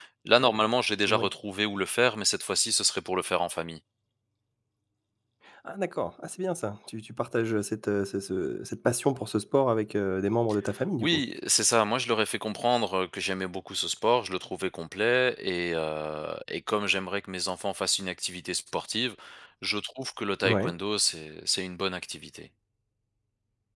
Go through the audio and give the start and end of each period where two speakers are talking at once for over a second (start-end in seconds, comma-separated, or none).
none